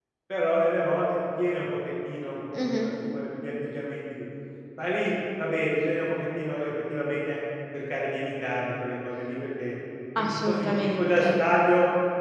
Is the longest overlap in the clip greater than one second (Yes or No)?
Yes